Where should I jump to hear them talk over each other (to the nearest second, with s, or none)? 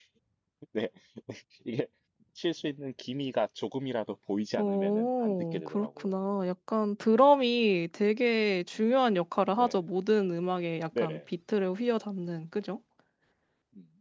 5 s